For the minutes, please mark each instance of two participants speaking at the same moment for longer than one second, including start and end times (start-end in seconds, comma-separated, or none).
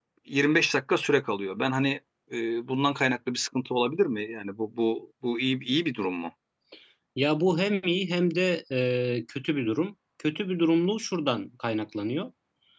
none